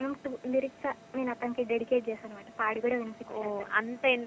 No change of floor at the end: No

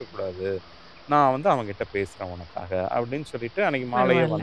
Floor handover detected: No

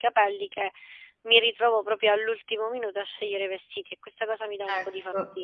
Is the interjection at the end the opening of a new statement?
Yes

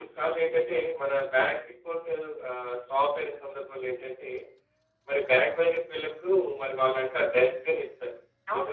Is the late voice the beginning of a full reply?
No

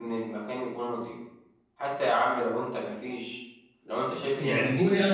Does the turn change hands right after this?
Yes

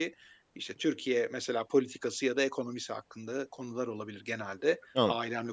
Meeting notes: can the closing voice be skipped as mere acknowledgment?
Yes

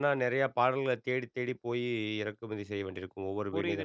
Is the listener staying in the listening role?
No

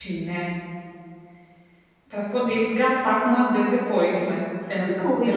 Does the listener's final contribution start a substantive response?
Yes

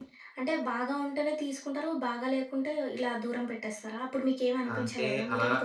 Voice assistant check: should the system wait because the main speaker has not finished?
No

